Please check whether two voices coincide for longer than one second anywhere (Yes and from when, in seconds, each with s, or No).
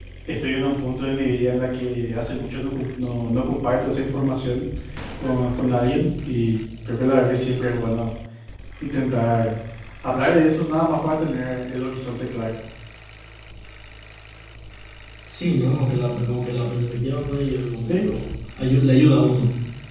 No